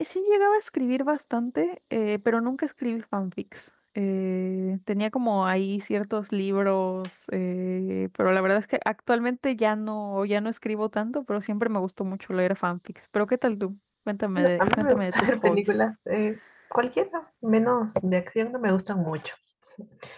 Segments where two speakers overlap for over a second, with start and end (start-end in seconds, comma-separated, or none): 14.4-15.7